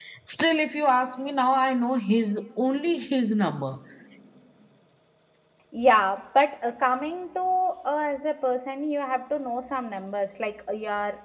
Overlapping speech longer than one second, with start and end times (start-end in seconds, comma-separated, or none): none